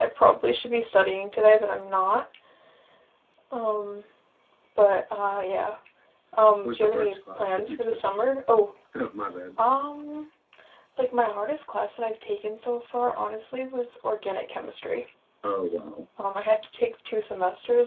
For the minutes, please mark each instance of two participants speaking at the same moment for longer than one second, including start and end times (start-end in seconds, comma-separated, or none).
6.7-8.0